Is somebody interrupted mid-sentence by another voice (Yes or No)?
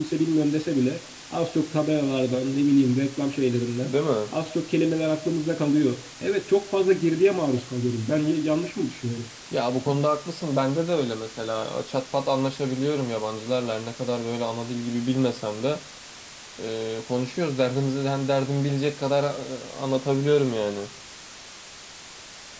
No